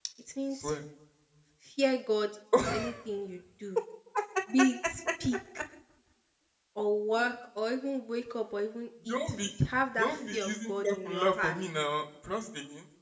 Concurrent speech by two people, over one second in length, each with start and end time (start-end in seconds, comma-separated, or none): 10.0-11.5